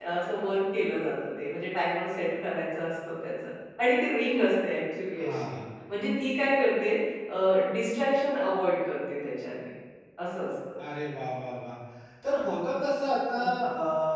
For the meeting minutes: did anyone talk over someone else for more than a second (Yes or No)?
No